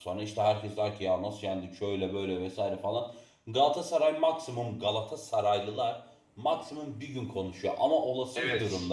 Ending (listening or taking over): listening